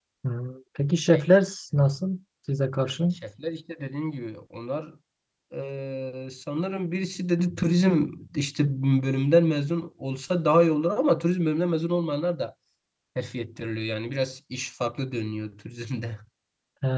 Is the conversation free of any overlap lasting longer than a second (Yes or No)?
Yes